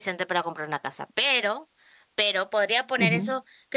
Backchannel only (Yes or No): Yes